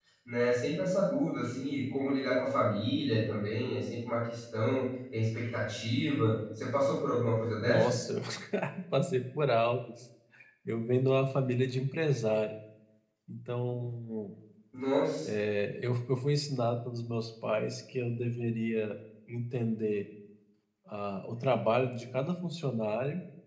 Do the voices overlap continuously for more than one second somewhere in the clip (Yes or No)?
No